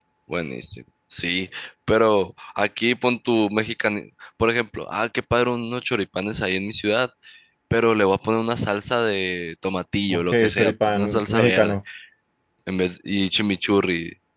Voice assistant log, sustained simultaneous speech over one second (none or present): present